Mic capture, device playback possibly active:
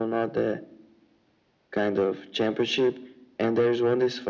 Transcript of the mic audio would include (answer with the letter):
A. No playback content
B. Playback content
B